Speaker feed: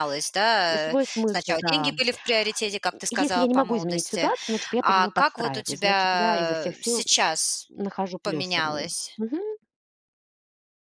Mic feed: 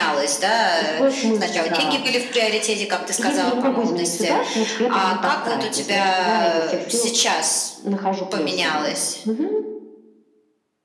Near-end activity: none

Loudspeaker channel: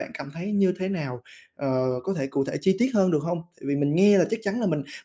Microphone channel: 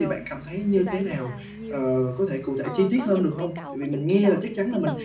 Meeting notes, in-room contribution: present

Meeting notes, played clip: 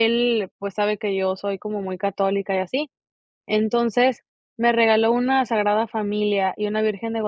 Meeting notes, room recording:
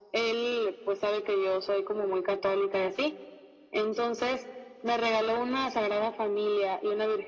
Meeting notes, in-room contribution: none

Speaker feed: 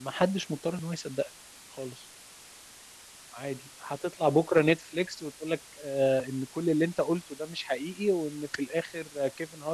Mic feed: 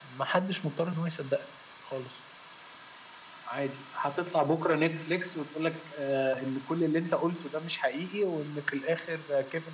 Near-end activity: none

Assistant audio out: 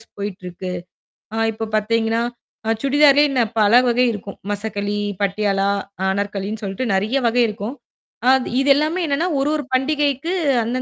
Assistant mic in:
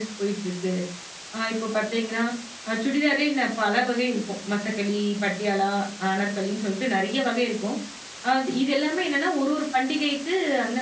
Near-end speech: none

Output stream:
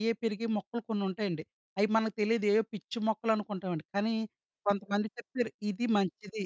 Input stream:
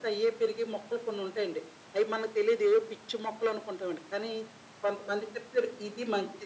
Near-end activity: none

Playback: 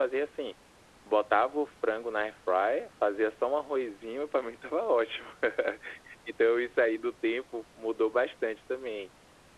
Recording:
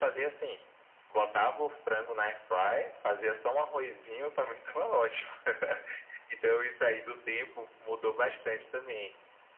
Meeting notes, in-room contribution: none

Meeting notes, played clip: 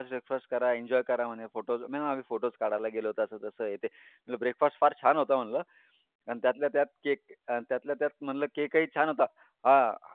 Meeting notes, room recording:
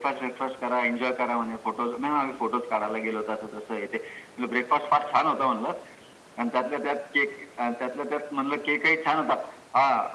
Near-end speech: none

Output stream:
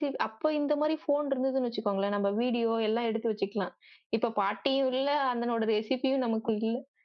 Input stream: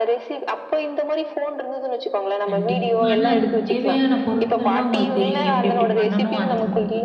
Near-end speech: present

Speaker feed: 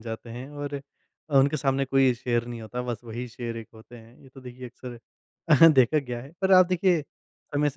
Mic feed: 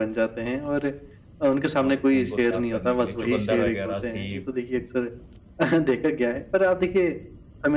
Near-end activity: present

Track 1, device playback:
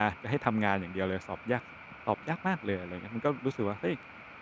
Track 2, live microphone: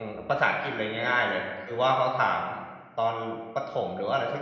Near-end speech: present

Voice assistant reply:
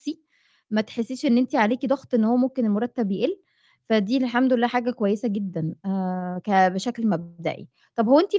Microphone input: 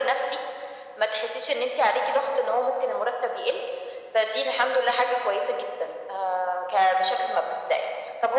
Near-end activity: none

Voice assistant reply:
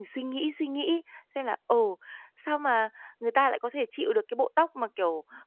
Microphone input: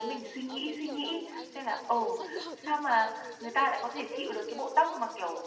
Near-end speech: present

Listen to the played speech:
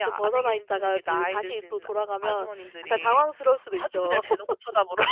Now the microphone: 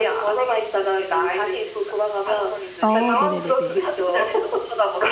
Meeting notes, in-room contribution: present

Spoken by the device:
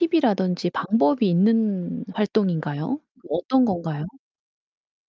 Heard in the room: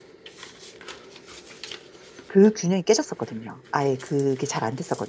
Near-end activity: present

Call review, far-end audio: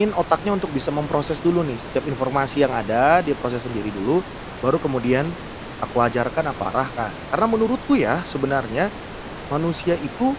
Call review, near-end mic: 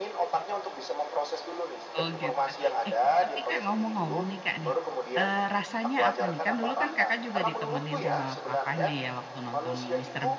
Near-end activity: present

